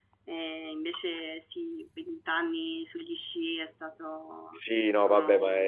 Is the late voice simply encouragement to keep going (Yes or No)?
No